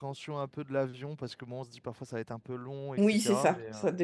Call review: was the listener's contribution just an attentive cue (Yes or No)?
No